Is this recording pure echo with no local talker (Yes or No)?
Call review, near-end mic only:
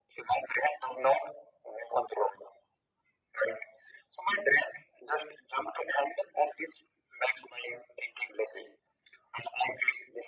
Yes